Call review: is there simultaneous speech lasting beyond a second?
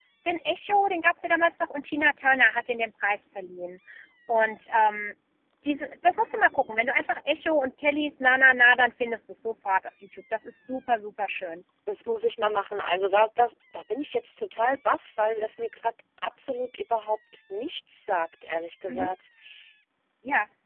No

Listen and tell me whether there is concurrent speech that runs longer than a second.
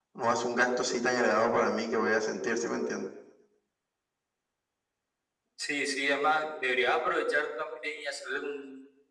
No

